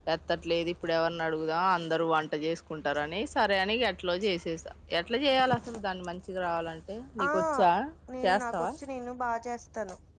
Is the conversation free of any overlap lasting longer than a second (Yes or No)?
Yes